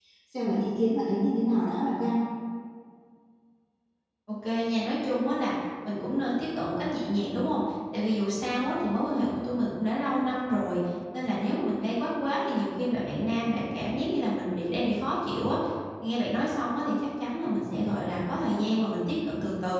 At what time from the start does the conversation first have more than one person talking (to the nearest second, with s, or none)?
none